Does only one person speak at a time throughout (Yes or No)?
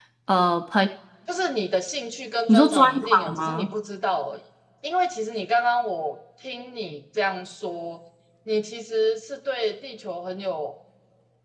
No